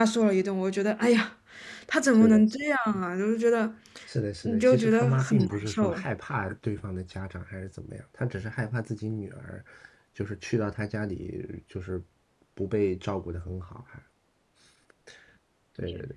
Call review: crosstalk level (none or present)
present